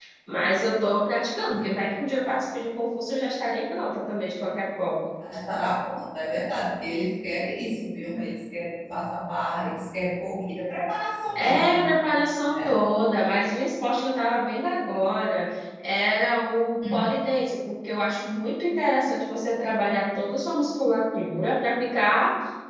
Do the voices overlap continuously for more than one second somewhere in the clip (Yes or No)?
No